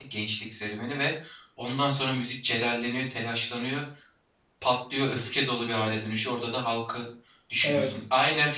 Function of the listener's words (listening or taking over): listening